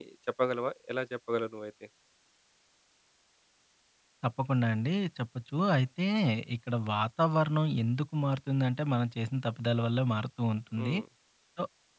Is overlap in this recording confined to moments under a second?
Yes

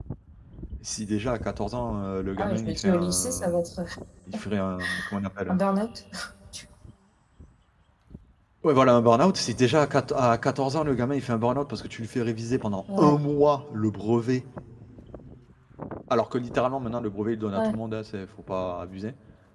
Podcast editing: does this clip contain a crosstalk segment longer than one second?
Yes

